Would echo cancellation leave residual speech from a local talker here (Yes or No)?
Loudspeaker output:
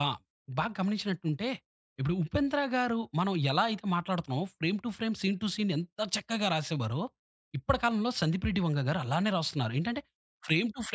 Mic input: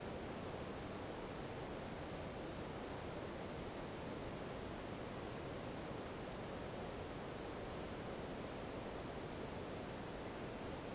No